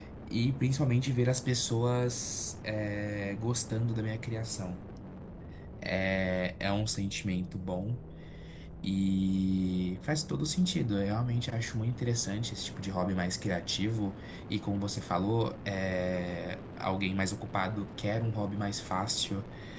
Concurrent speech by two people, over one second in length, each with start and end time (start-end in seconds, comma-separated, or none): none